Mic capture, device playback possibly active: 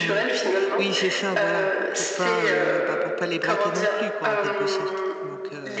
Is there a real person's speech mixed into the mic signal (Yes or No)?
Yes